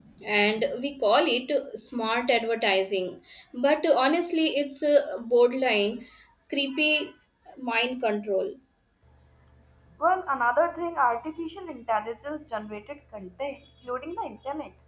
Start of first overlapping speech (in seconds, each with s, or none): none